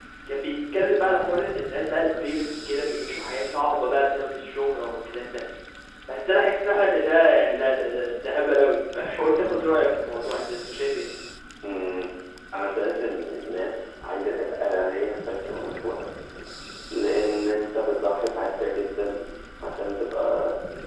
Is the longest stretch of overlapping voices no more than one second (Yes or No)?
Yes